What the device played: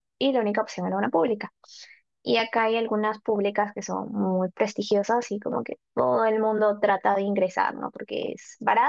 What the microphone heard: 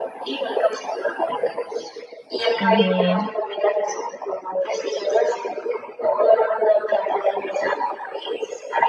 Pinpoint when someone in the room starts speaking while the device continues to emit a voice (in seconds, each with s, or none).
2.5 s